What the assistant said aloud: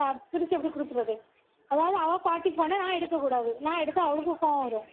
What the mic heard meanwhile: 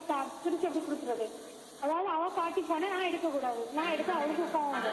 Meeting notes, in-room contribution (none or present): present